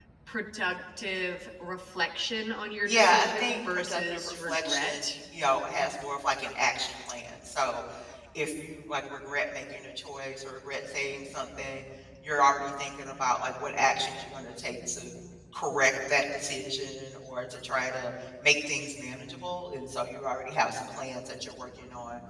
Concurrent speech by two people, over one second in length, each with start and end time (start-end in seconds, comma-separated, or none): 2.9-5.0